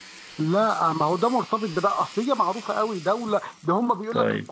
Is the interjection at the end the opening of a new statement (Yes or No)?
No